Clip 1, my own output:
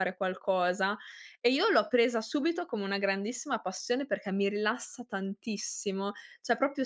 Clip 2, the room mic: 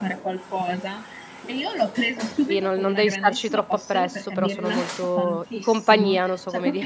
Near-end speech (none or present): present